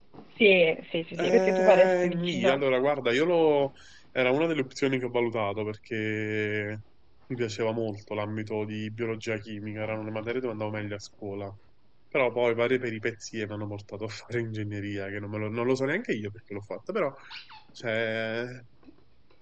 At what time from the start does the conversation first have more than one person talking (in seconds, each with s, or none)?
1.2 s